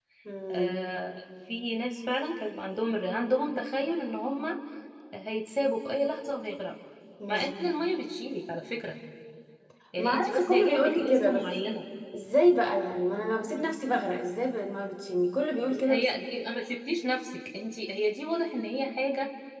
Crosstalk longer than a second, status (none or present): present